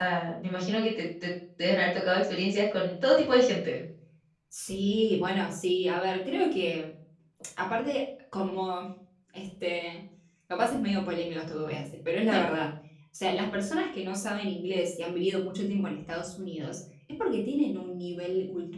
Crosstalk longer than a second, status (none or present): none